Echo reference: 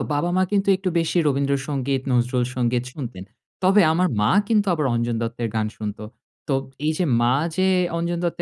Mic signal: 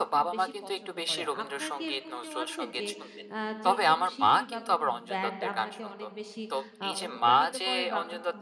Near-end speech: present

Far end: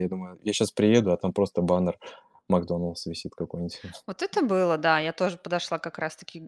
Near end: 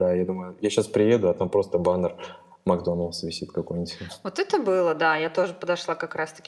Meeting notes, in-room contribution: none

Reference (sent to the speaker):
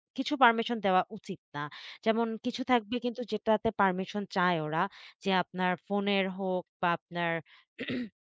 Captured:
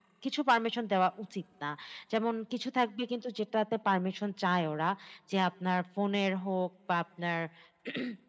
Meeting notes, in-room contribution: none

